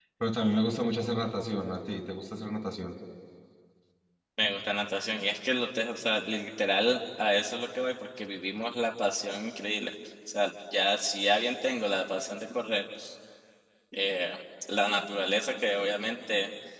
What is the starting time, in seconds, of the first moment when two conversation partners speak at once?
none

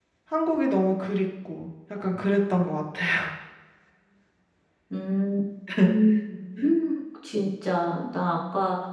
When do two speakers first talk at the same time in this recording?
none

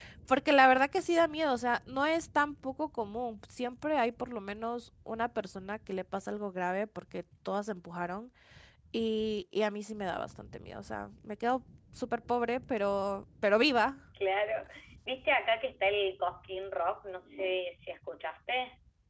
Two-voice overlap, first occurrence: none

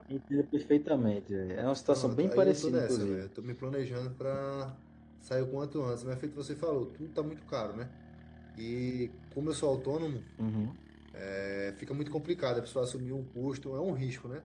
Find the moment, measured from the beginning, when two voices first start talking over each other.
1.9 s

